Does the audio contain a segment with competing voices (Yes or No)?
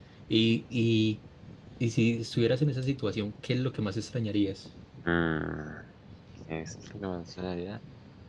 No